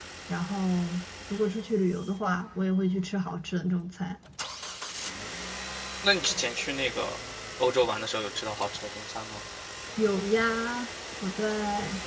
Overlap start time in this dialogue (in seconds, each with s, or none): none